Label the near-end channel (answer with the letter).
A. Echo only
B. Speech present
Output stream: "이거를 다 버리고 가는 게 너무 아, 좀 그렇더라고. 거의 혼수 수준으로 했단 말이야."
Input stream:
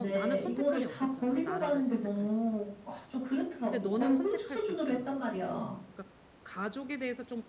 B